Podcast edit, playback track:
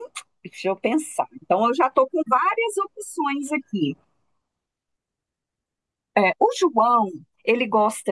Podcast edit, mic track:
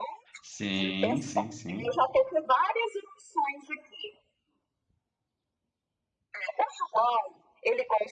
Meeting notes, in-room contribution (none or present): present